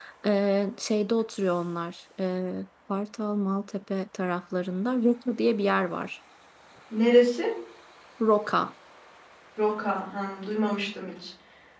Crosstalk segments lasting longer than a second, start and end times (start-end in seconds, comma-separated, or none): none